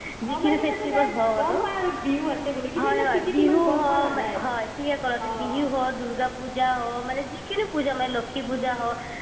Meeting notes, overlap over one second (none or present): present